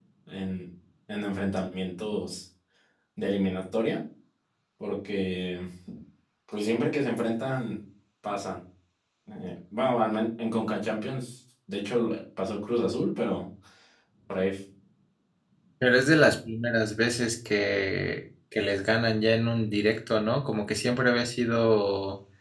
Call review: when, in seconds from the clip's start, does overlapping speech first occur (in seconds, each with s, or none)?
none